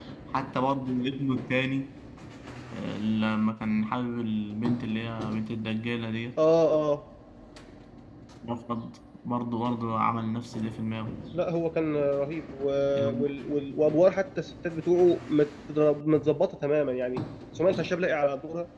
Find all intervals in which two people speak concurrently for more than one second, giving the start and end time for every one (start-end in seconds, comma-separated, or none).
none